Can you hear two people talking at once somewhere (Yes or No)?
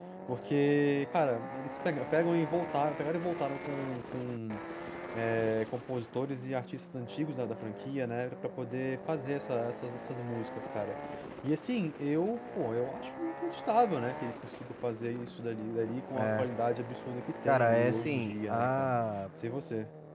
Yes